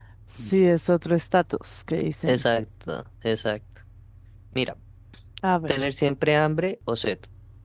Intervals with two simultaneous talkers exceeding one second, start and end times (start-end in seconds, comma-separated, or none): none